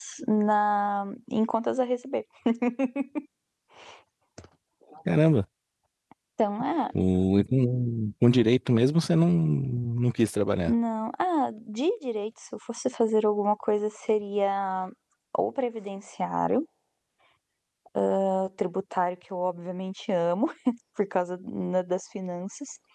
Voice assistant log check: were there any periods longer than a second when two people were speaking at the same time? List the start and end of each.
none

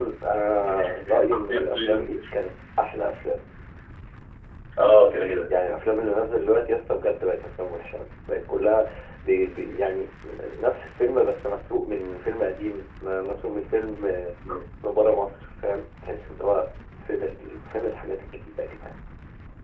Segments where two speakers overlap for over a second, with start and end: 0.6-2.1

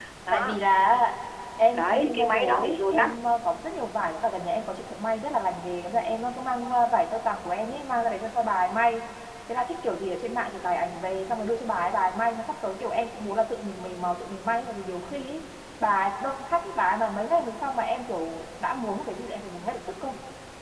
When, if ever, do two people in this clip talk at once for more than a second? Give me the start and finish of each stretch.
1.7-3.1

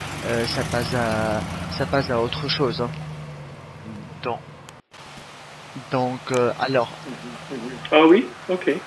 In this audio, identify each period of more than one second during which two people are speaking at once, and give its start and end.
none

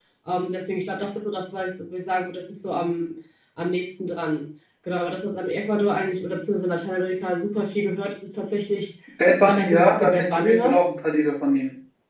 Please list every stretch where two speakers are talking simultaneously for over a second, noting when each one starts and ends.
9.4-10.9

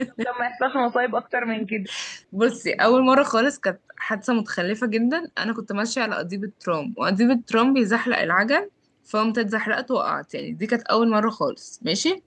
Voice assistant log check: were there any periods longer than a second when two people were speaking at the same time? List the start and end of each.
none

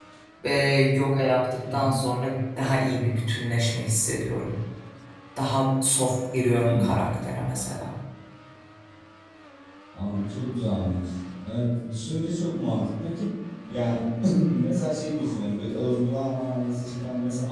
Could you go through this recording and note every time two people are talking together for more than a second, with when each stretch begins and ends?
none

